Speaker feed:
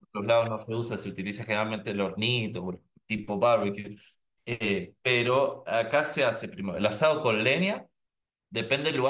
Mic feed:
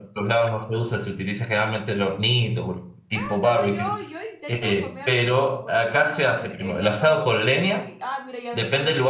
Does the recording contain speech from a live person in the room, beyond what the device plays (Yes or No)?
Yes